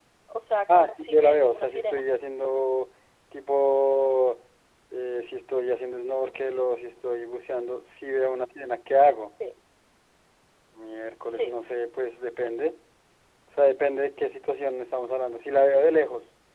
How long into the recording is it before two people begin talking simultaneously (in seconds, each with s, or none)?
0.7 s